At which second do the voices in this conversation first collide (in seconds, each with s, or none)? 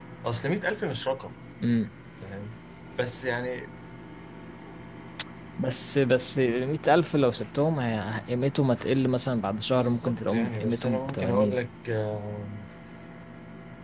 9.7 s